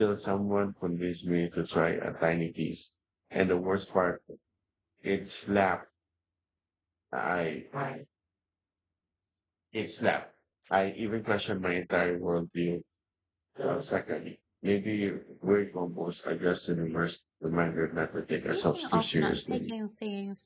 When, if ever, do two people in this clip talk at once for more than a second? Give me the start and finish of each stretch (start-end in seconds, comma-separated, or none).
18.4-19.7